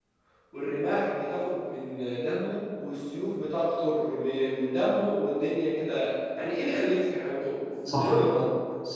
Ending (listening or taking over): taking over